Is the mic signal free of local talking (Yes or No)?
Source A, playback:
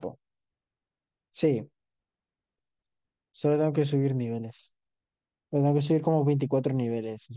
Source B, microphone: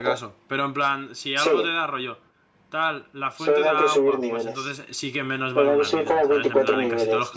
No